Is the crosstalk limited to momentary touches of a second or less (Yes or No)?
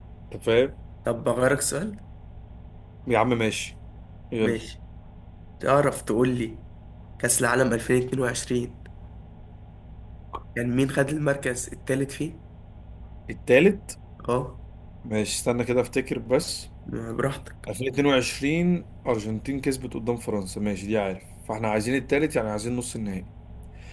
Yes